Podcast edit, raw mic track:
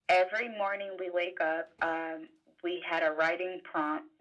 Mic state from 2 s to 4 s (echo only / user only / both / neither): echo only